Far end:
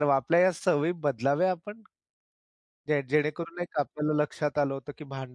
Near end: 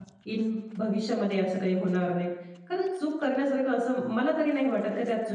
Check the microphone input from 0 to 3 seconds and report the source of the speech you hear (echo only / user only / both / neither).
user only